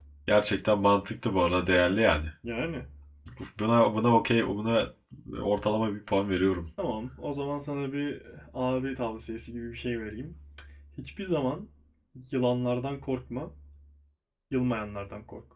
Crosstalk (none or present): none